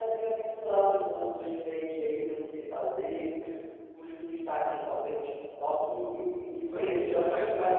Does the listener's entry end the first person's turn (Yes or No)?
Yes